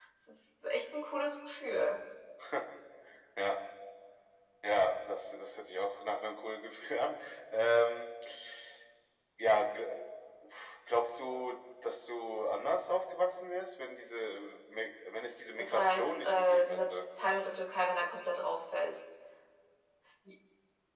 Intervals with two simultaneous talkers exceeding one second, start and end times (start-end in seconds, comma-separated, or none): 15.6-16.8